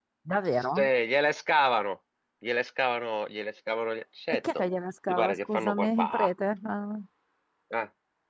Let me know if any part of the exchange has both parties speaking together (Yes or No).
Yes